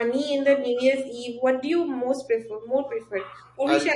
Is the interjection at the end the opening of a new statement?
No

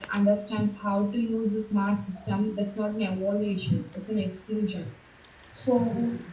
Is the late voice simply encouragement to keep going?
Yes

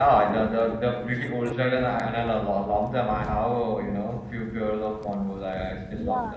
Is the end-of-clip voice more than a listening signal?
Yes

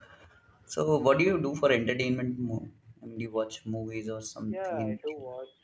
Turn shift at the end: Yes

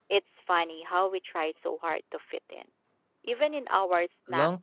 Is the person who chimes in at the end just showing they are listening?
No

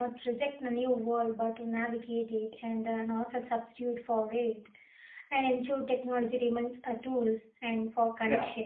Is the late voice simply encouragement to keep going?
No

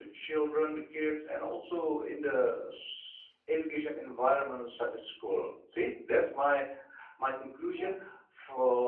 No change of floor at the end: Yes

